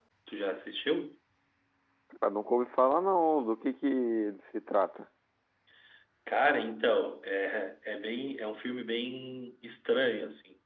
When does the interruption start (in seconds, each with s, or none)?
none